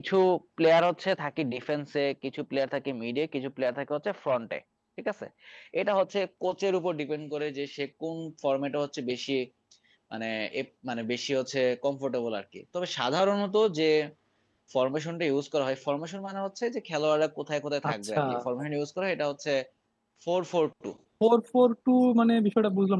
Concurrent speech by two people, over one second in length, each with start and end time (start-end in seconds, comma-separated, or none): none